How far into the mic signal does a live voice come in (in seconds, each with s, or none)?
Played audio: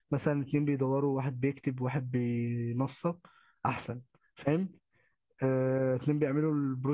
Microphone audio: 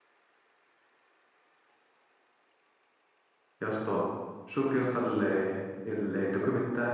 3.6 s